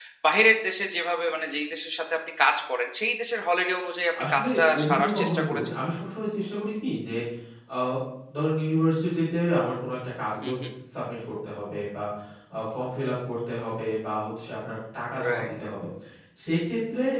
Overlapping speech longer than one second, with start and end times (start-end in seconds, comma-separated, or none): 4.2-5.7